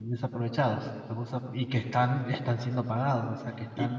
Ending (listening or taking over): taking over